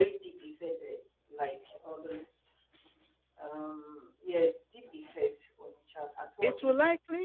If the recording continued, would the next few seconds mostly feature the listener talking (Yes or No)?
Yes